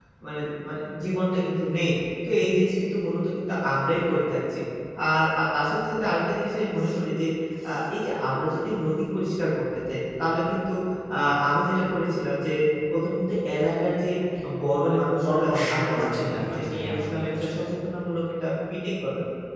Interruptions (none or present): present